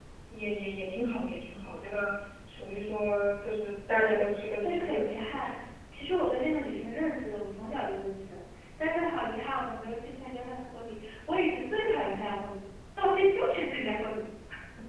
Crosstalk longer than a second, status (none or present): present